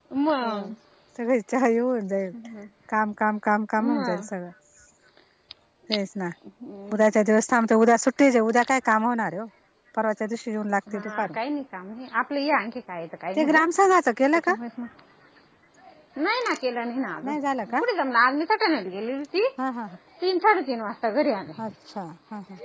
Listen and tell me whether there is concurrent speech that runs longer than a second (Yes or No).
No